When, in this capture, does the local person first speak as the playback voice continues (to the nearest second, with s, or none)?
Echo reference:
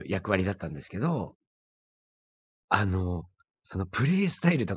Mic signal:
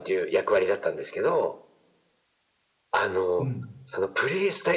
3 s